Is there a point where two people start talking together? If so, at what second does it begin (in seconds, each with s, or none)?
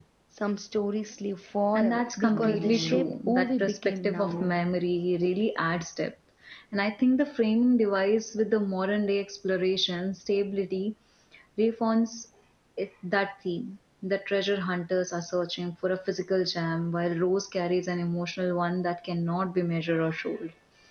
1.7 s